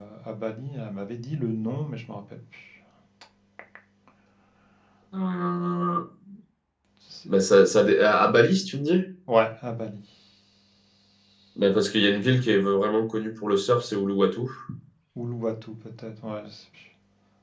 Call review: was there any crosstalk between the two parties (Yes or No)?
No